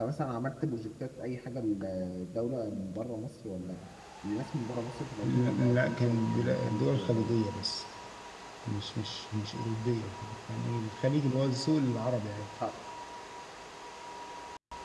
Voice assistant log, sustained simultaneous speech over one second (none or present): present